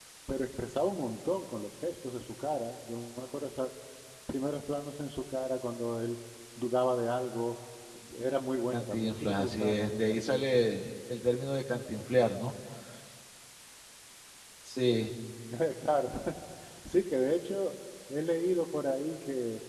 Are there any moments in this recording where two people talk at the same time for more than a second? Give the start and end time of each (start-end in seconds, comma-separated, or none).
8.7-10.6